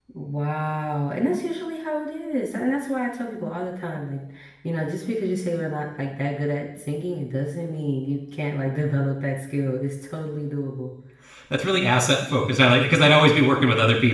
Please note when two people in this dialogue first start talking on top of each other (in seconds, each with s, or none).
none